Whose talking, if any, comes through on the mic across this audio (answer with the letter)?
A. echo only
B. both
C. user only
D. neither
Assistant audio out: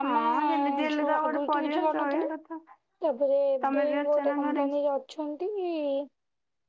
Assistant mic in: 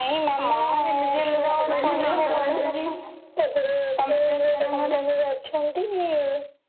B